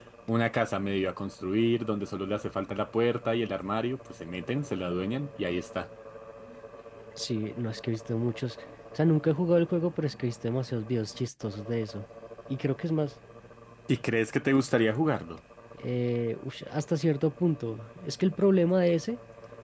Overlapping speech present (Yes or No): No